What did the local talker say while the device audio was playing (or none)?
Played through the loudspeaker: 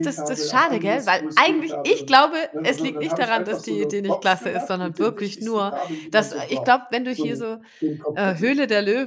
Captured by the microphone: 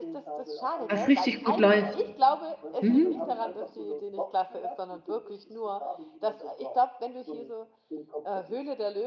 was richtig gut läuft. Mhm.